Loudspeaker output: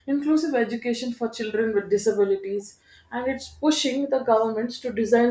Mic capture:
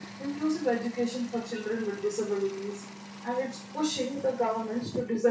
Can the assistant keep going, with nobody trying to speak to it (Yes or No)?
Yes